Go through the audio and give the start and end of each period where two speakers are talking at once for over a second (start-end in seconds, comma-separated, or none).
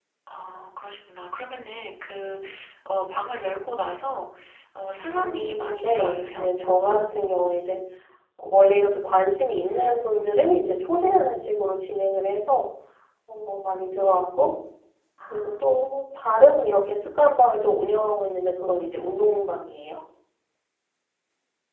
5.2-6.4